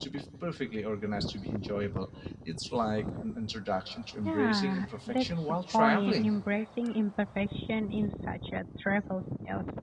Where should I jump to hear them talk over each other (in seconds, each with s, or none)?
4.2 s